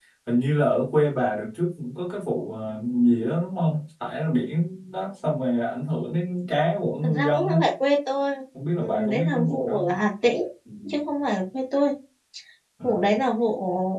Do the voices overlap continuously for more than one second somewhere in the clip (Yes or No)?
Yes